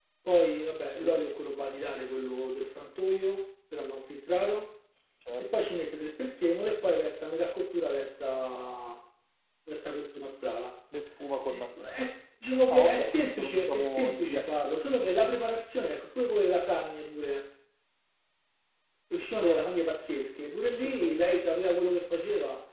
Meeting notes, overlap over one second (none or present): present